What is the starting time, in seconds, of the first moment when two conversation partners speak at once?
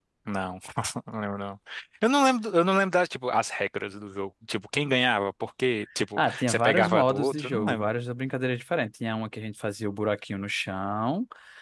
6.2 s

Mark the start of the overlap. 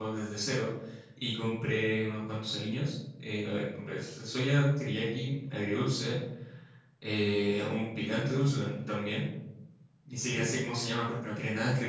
none

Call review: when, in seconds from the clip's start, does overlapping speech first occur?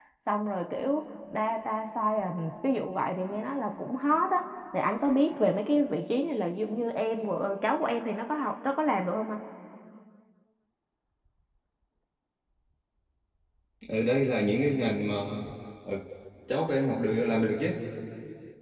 none

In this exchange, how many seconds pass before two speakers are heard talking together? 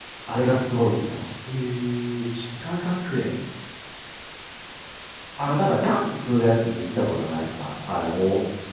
none

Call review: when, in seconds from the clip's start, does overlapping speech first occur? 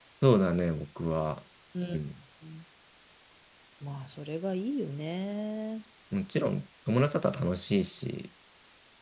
none

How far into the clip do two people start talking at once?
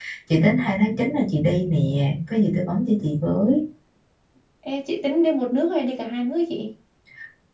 none

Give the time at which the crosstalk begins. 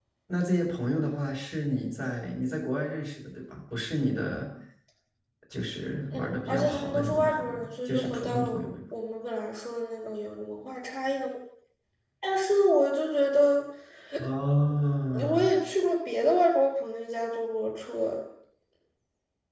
6.1 s

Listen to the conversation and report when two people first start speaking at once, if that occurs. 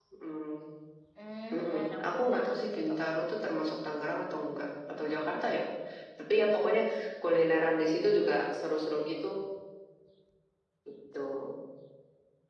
1.5 s

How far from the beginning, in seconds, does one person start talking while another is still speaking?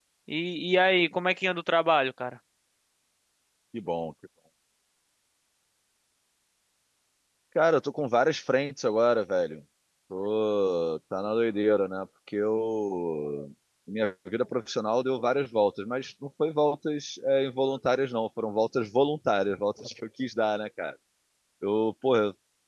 none

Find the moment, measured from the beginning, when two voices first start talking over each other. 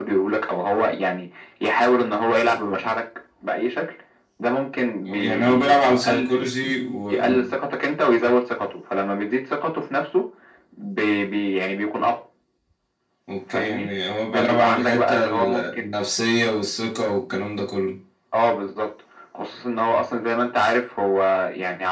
5.1 s

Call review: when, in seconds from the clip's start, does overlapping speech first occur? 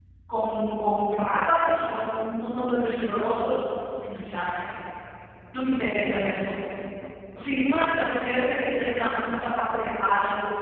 none

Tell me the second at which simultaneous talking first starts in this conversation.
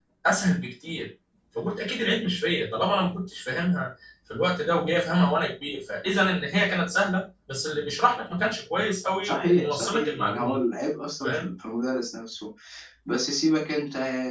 9.2 s

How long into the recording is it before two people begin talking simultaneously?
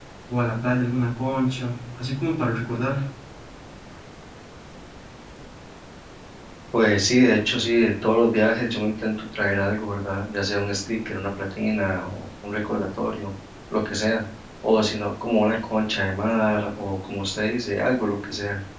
none

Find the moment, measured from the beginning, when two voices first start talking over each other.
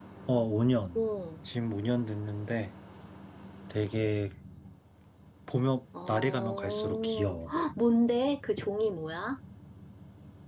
6.1 s

